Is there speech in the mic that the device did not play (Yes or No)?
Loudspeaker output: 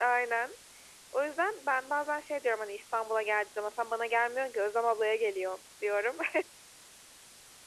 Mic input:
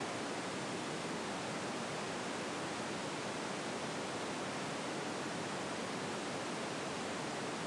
No